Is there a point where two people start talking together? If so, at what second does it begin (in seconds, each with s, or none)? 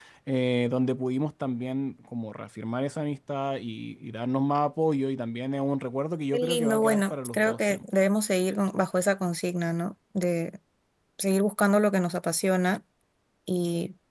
6.3 s